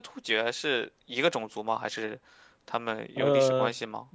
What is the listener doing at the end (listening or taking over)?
taking over